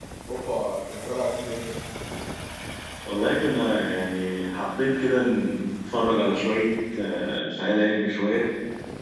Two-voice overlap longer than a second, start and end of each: none

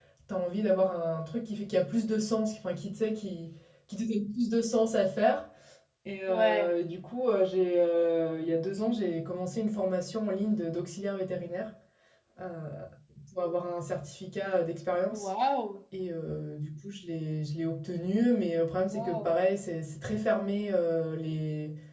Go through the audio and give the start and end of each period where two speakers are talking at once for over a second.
none

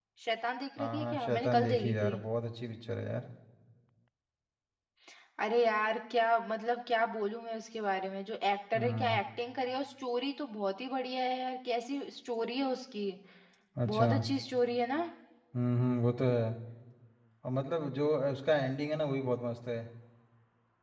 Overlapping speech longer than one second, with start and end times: 0.8-2.1

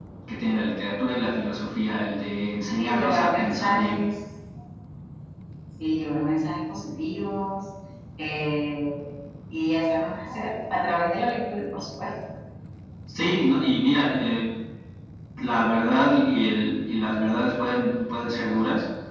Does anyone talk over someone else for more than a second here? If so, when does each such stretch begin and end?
2.8-4.0

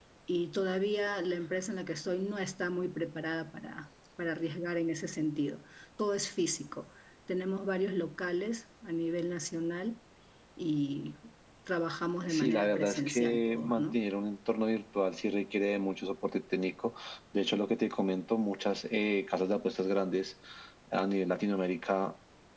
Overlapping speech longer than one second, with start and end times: 12.3-14.0

